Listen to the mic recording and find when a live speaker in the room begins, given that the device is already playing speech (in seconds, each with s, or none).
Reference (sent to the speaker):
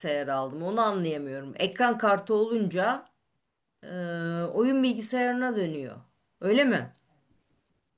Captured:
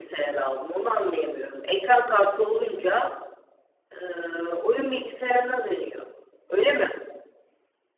none